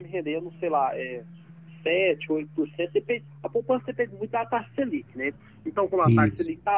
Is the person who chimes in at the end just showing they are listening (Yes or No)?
Yes